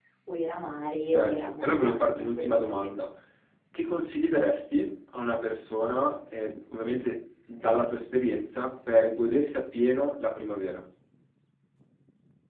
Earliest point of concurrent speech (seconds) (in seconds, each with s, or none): 1.1 s